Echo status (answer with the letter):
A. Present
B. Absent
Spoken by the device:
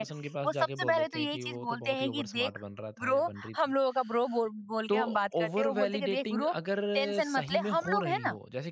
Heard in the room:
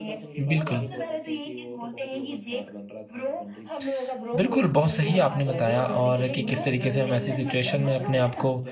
A